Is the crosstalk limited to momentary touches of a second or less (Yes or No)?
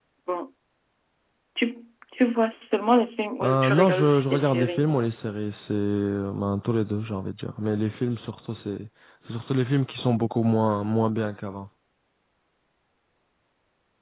No